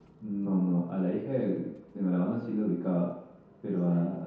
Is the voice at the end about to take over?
No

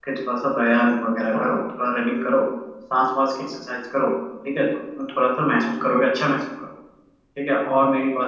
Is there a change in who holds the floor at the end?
No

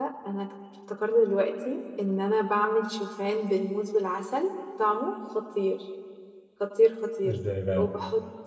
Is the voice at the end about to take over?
No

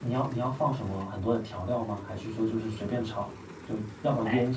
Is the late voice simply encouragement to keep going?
No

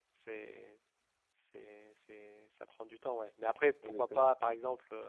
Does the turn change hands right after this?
No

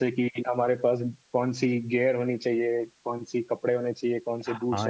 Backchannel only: No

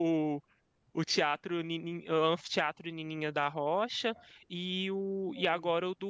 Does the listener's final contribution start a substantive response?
No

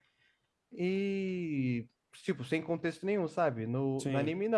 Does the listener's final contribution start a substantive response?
No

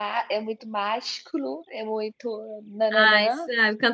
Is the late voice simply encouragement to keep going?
No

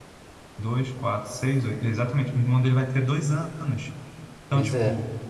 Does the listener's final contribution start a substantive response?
No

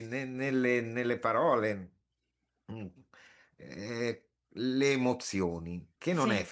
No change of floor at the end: Yes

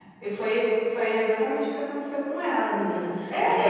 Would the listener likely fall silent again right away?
No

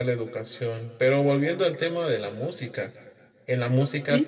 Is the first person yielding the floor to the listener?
No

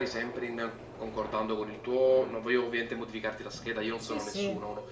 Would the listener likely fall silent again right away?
Yes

